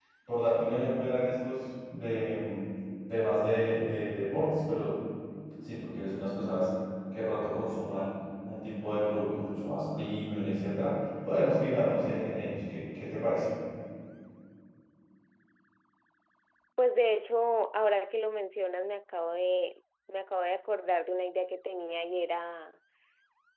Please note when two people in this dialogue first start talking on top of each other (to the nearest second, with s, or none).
none